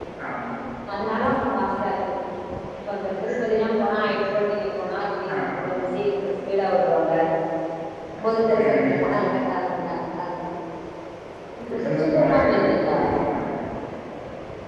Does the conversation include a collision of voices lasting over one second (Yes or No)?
Yes